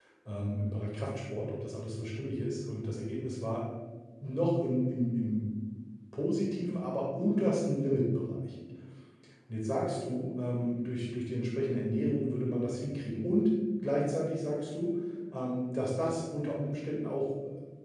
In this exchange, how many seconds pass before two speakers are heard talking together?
none

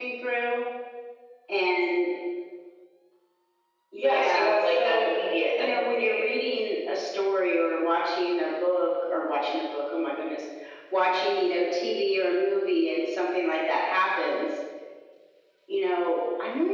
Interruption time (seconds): 4.0 s

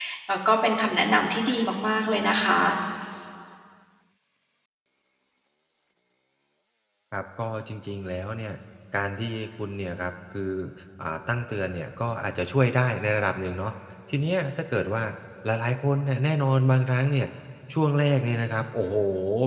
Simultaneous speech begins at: none

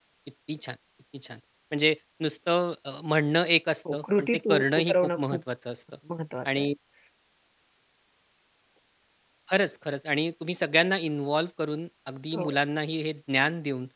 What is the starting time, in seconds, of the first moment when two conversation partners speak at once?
3.9 s

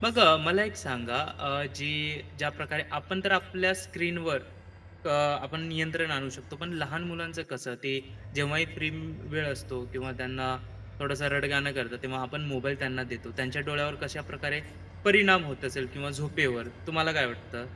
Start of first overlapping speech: none

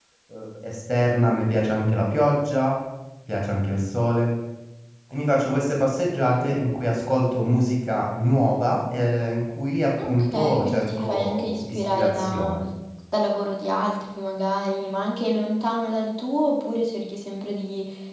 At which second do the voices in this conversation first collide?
10.0 s

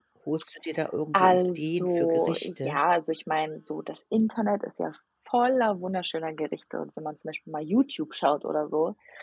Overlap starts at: 1.1 s

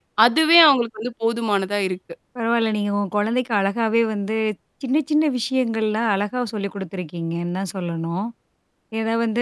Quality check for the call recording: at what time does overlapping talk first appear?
none

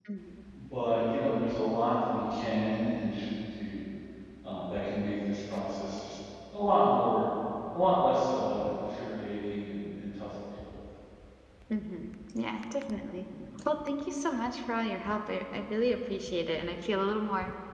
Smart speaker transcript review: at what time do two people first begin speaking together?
none

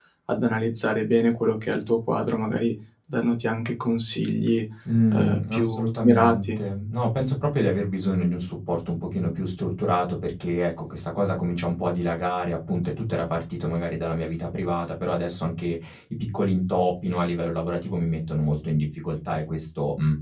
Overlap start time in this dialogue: 5.1 s

